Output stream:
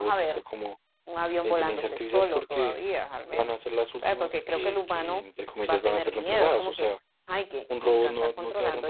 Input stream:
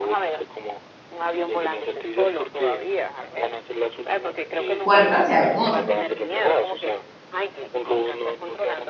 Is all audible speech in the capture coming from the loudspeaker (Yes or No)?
No